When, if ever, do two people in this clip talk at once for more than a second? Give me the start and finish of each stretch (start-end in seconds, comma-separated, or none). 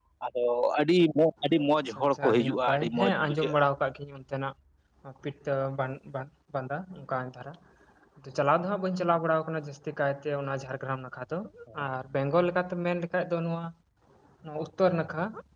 1.9-3.7